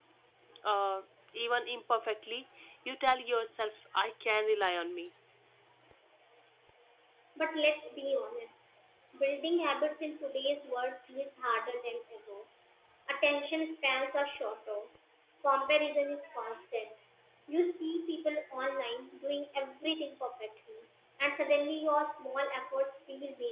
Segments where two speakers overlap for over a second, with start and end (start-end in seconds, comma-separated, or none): none